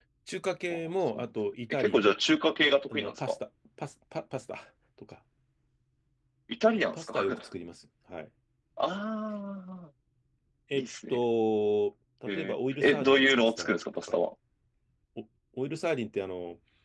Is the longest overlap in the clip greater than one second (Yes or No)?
Yes